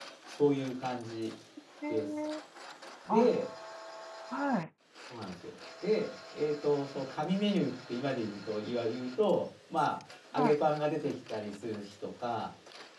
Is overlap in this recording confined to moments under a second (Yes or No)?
Yes